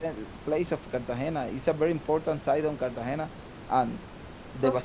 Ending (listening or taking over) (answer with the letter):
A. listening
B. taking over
A